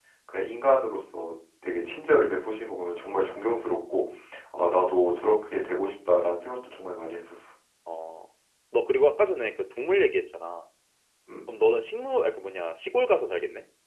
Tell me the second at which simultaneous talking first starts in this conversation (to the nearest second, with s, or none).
none